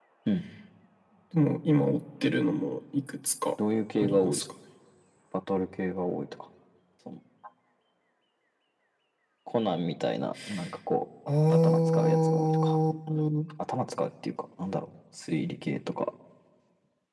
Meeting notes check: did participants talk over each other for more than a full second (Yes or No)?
Yes